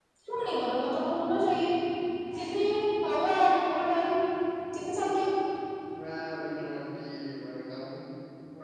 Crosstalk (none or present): none